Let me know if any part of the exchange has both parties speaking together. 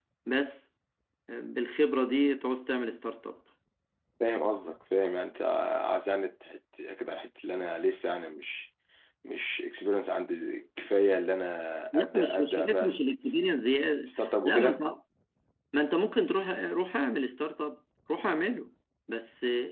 Yes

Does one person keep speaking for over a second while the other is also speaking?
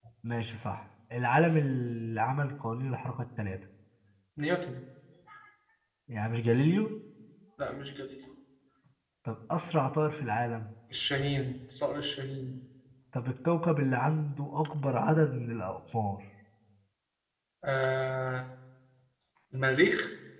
No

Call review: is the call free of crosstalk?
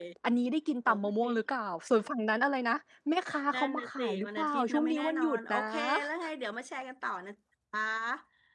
No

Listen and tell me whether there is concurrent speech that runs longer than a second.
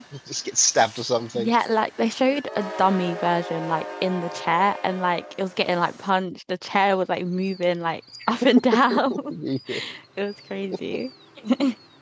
No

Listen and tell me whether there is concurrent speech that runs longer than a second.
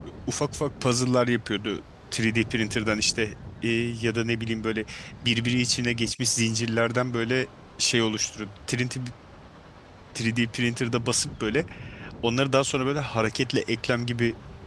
No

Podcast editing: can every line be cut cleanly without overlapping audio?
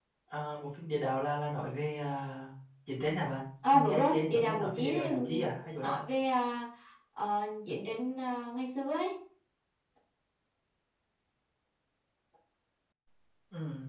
No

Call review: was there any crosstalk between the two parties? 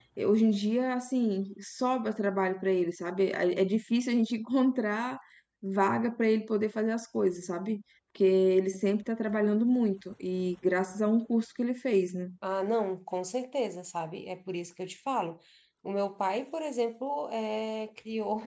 No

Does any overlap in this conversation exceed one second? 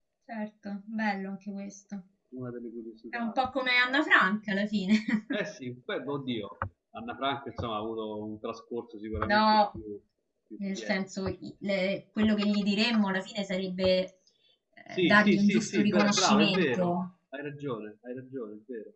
Yes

